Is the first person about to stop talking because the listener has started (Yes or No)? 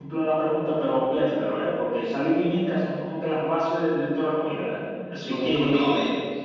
Yes